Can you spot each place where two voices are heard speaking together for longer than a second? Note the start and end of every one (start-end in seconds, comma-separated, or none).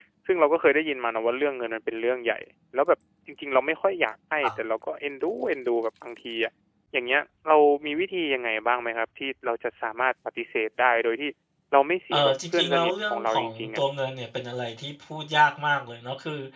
12.1-13.8